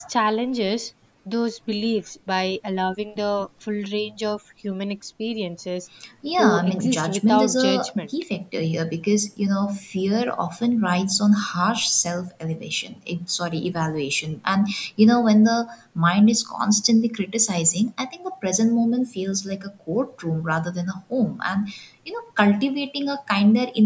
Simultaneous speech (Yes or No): Yes